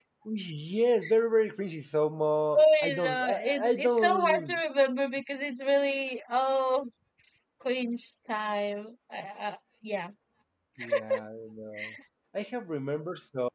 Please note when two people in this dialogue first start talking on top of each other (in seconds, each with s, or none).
2.6 s